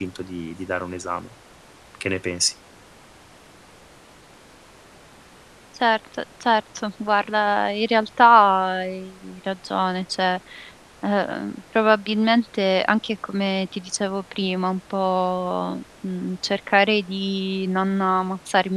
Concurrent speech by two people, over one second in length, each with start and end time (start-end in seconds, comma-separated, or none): none